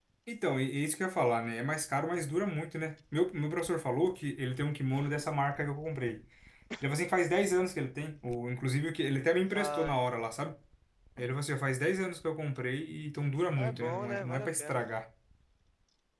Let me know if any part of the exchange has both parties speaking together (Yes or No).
Yes